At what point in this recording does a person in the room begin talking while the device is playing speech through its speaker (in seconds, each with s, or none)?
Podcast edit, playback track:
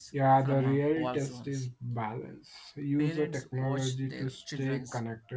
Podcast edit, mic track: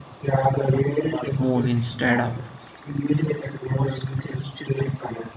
1.4 s